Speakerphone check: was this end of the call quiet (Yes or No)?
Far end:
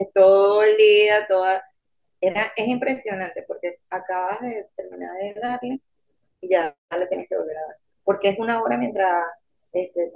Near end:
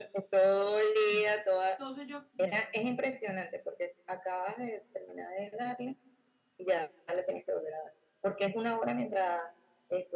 No